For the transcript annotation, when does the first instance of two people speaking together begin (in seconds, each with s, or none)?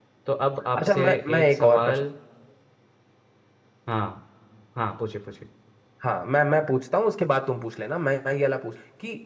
0.8 s